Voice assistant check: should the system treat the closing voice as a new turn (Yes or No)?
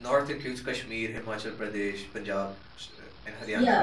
Yes